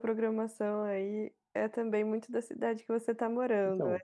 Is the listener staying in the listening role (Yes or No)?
No